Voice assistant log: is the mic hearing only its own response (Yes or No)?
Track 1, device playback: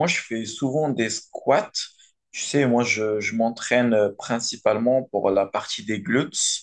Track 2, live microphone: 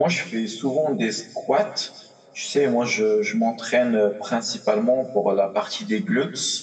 Yes